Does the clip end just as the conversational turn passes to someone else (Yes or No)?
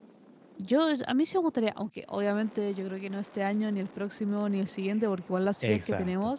No